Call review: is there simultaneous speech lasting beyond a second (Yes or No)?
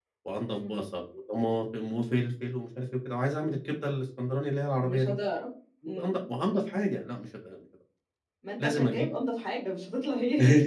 No